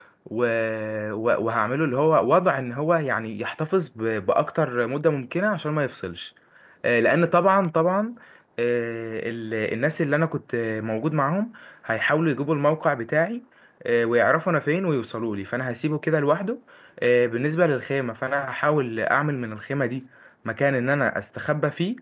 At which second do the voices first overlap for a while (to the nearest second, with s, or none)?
none